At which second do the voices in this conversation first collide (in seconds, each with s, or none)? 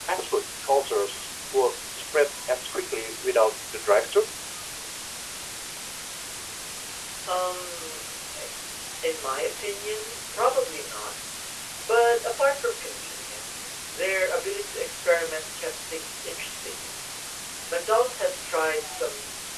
none